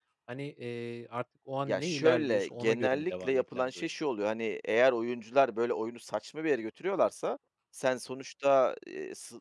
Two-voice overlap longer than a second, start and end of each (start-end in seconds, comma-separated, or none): 1.7-3.9